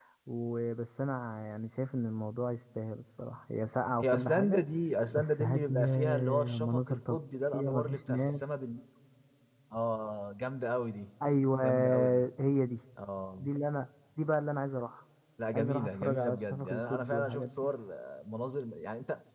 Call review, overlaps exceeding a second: present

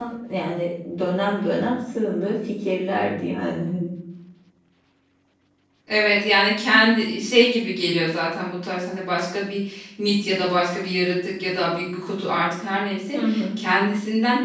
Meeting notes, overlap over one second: none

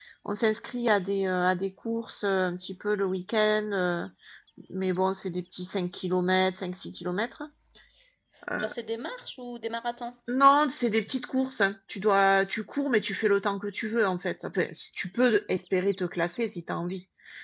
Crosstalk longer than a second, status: none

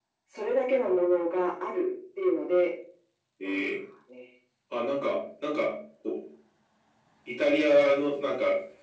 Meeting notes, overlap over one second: none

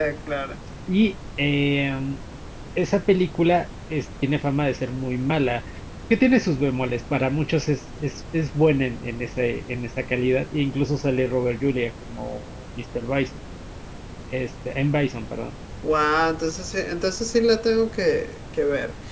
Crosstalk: none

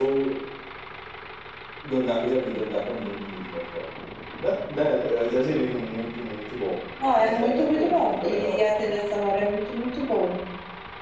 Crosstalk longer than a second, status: present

